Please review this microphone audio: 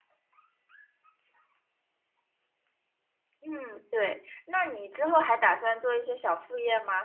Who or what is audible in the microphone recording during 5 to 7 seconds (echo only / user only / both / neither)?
user only